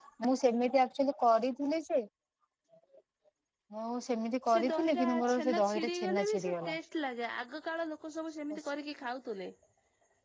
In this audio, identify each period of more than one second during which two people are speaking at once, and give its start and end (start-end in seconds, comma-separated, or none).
4.5-6.8